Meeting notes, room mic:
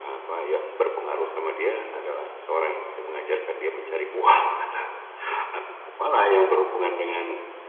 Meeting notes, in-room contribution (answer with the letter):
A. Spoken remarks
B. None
B